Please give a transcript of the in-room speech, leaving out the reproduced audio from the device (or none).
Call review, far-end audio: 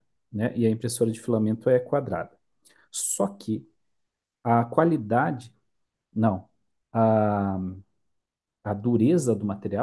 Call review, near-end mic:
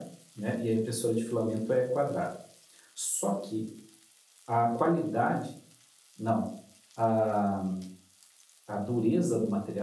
none